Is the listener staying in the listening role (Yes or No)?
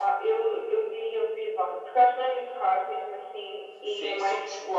No